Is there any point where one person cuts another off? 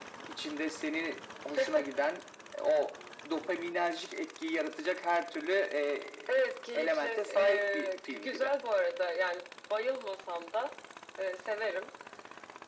Yes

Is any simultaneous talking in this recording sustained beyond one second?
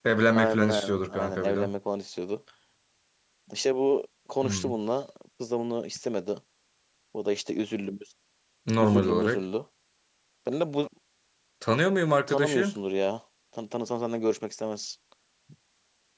Yes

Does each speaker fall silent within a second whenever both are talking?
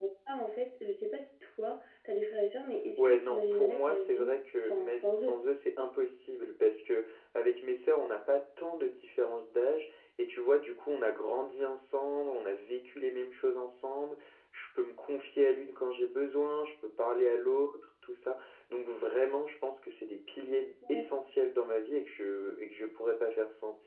No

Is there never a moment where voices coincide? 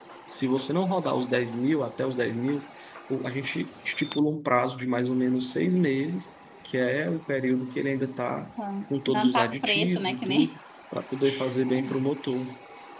No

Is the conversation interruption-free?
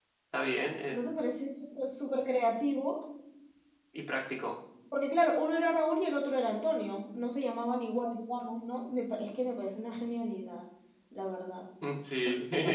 Yes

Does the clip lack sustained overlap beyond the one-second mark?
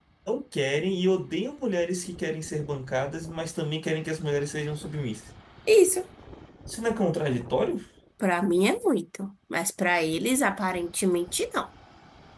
Yes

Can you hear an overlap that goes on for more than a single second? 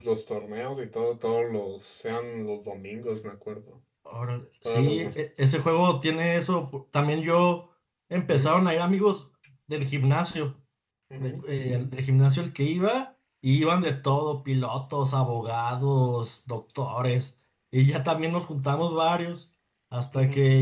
No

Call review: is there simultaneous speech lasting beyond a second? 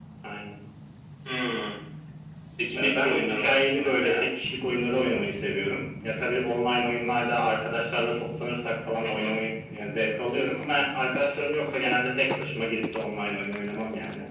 Yes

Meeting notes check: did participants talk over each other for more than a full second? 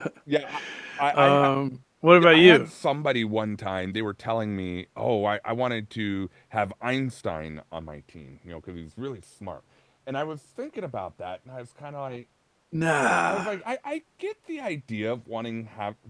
No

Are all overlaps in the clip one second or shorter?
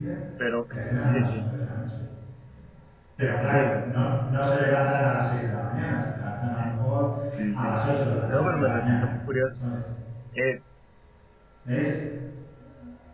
No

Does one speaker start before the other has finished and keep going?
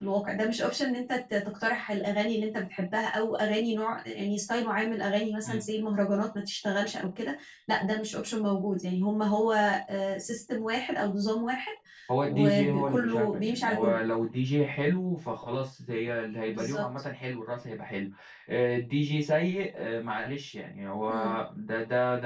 Yes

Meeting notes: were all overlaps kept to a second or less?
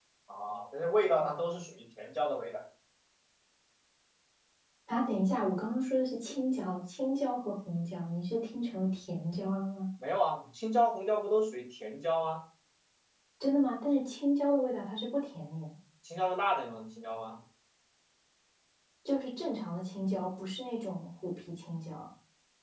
Yes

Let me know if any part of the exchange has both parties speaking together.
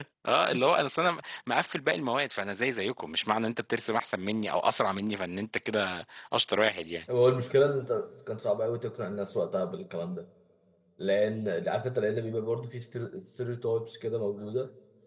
No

